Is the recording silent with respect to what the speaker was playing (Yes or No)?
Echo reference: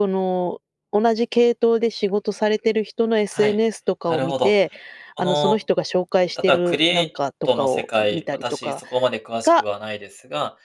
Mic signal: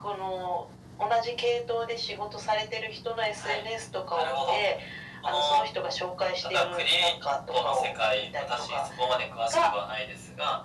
No